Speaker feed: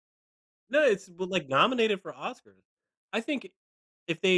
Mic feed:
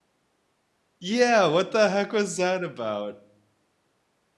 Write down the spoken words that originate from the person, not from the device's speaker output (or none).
Yeah! What the heck was that about?